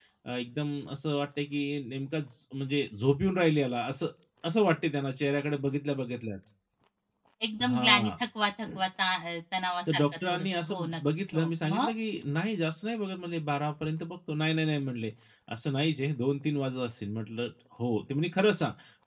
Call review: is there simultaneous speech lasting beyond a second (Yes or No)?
Yes